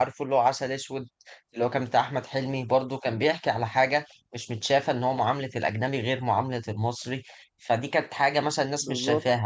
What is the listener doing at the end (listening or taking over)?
listening